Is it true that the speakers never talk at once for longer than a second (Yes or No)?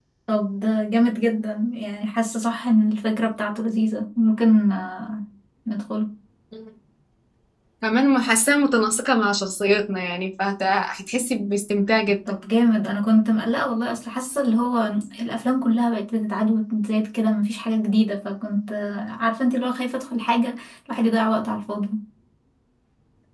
Yes